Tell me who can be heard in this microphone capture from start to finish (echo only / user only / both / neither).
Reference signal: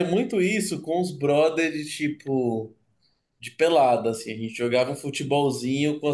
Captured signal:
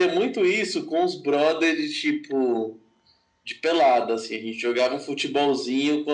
echo only